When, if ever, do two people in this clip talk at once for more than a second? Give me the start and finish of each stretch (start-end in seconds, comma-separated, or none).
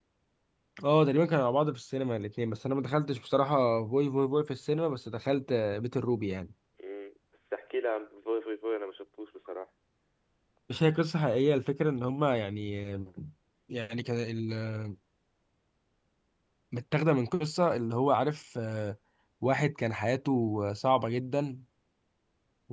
none